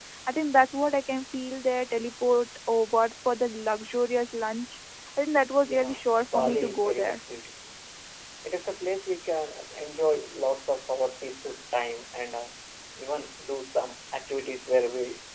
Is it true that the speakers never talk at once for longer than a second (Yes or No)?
No